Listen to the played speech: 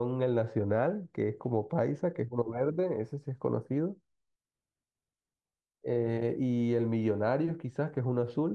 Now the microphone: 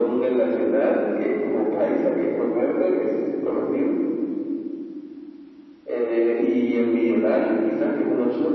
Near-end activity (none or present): none